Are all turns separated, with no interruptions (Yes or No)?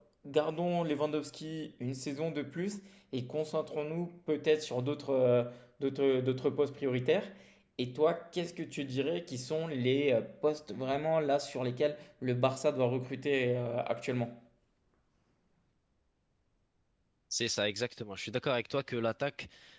Yes